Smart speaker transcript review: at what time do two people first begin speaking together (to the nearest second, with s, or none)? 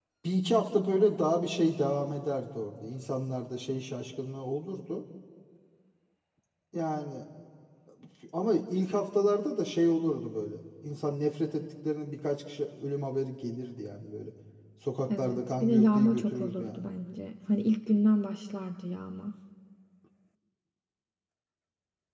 15 s